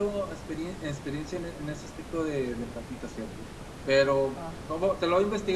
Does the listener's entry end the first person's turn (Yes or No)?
No